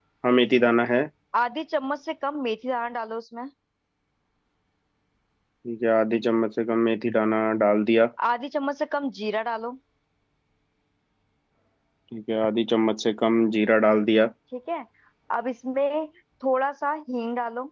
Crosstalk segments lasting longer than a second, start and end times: none

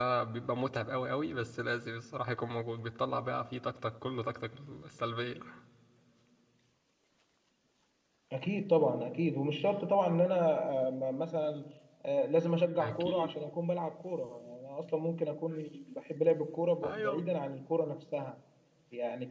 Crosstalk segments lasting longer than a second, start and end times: none

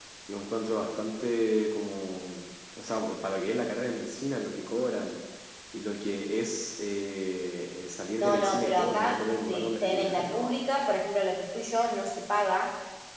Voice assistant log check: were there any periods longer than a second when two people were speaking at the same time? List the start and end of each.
8.2-10.6

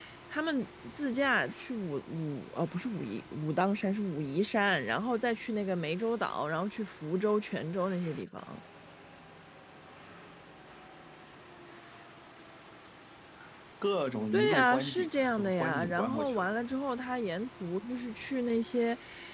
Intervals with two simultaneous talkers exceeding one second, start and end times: 14.3-16.5

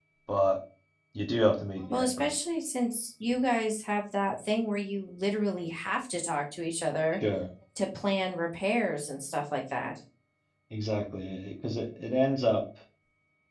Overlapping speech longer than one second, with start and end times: none

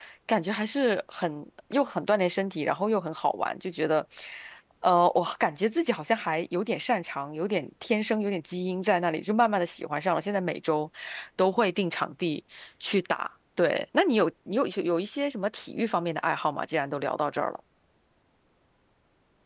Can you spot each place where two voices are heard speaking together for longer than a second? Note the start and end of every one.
none

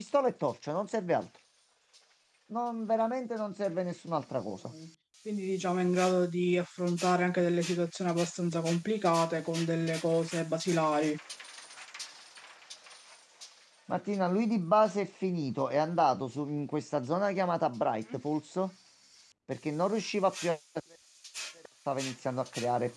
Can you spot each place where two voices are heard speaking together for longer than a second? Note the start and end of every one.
none

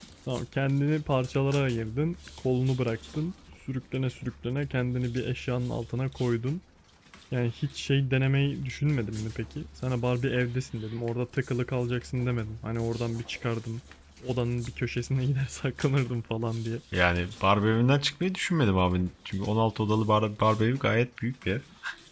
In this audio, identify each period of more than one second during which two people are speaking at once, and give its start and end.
none

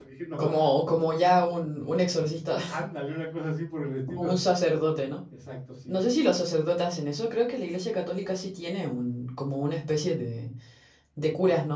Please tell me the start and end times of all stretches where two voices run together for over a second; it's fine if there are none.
none

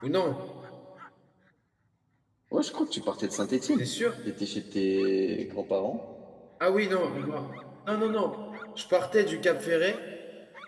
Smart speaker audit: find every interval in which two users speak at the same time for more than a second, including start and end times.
none

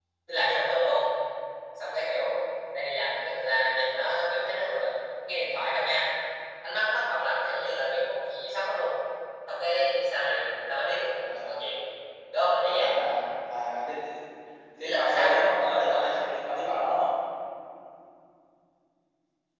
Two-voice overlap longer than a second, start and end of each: 14.8-16.1

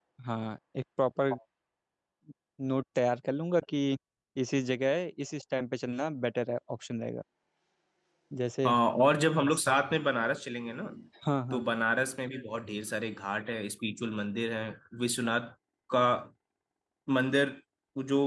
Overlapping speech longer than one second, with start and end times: none

